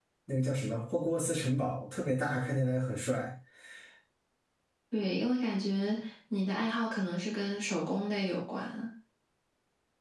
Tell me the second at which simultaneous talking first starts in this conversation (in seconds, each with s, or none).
none